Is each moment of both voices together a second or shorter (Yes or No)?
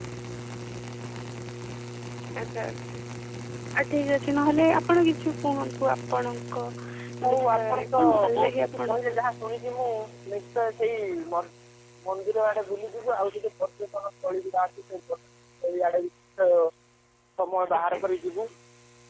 No